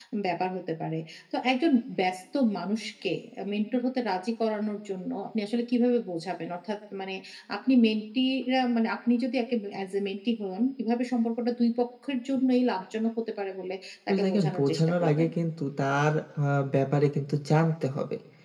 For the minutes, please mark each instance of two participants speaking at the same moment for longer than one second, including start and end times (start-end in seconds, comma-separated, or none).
14.1-15.3